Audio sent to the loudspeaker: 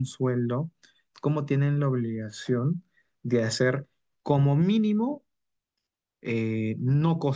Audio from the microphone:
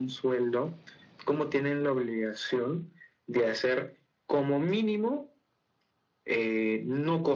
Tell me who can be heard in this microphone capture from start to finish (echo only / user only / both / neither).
echo only